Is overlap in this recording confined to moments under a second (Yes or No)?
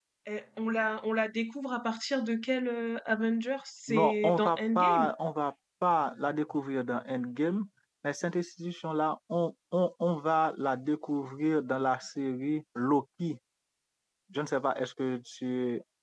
No